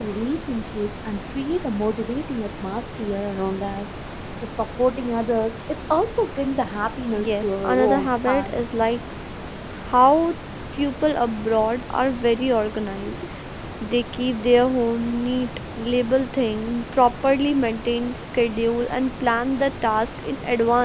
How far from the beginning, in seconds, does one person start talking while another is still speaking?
7.2 s

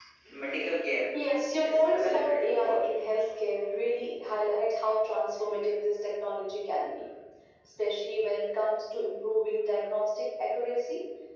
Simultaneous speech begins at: 1.6 s

